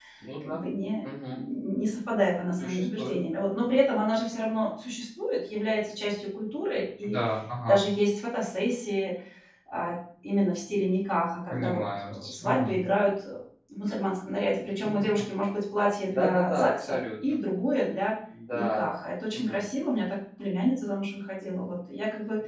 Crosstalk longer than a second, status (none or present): present